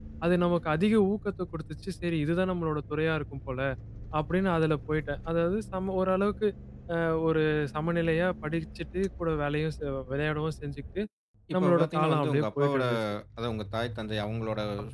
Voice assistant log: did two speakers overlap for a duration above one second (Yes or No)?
Yes